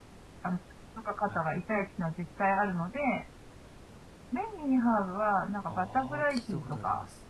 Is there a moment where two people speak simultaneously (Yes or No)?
Yes